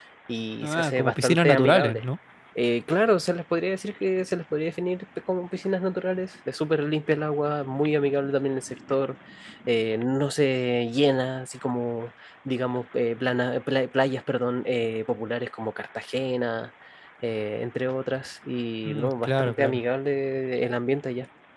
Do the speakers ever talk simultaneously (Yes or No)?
Yes